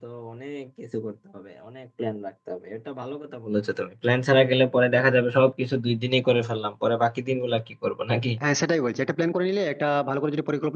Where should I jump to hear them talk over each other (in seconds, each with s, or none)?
none